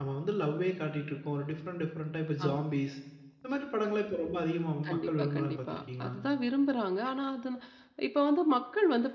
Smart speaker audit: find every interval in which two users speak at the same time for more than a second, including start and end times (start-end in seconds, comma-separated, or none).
4.9-6.1